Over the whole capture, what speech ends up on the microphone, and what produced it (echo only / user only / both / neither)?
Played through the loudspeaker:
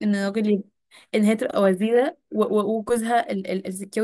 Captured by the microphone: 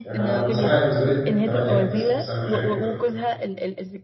both